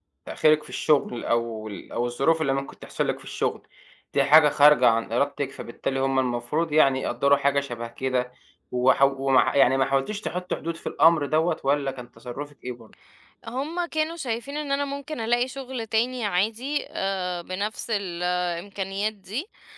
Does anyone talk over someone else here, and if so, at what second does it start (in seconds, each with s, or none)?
none